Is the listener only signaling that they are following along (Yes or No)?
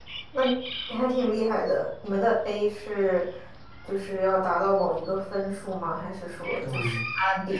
No